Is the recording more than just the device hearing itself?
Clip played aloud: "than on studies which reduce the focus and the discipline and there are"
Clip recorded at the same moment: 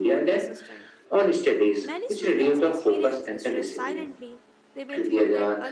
Yes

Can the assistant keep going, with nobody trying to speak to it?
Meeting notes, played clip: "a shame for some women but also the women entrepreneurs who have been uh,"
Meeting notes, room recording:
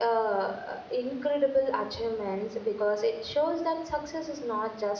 No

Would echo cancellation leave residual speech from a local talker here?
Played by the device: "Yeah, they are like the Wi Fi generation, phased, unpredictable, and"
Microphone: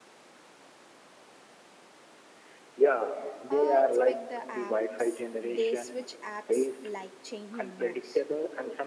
Yes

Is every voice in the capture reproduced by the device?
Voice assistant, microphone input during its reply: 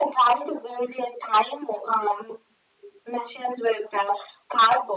Yes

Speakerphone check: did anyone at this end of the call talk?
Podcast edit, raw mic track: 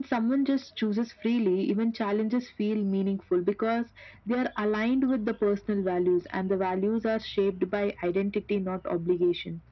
No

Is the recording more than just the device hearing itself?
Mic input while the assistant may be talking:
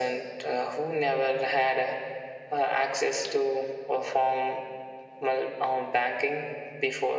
No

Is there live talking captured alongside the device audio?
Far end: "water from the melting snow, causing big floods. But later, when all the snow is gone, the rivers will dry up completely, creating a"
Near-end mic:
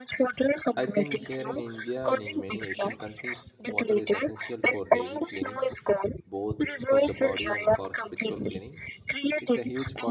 Yes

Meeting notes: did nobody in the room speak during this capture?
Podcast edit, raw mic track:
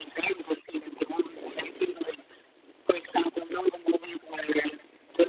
Yes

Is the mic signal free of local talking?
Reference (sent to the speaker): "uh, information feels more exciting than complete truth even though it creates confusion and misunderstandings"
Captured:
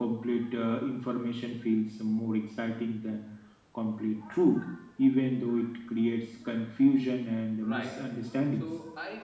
No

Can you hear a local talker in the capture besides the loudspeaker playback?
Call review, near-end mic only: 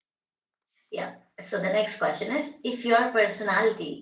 Yes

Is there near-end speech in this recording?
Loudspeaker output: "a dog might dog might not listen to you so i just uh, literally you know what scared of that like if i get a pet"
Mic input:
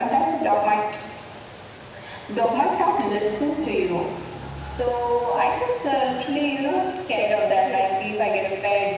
No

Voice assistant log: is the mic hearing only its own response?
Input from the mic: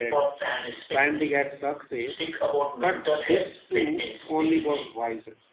No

